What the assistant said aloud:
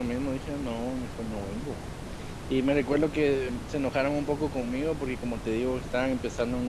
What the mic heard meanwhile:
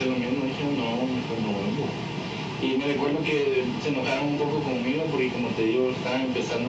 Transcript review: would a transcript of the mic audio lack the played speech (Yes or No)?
No